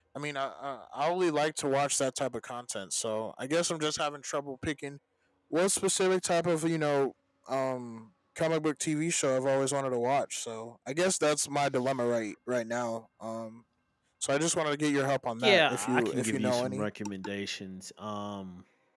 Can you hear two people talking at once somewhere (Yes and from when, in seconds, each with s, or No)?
Yes, from 15.4 s